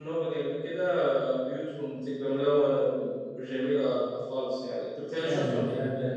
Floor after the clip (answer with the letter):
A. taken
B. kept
A